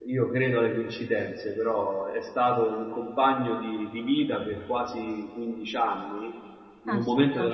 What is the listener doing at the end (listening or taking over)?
listening